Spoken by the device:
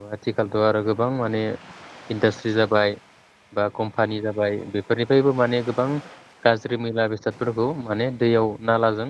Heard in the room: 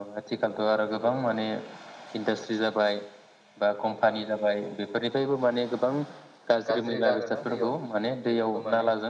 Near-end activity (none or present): present